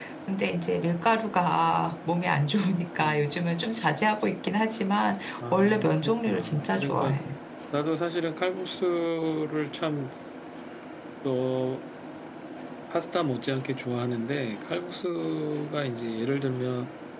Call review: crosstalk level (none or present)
present